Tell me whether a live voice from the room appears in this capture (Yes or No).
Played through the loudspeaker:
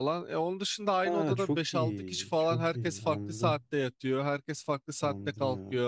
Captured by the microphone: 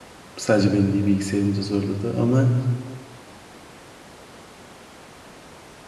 Yes